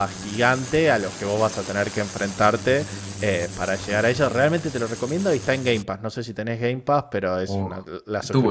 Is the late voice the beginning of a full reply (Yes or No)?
Yes